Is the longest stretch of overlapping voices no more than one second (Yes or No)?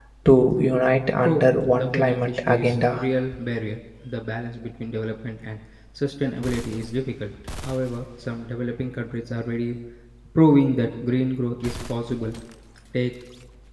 No